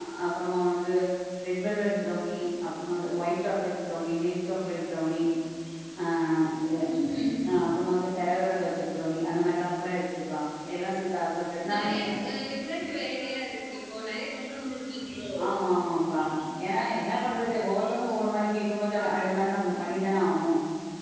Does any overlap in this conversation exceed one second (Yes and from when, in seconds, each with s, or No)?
No